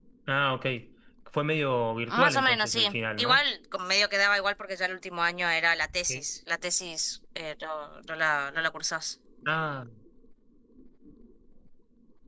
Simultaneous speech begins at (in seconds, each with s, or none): 2.1 s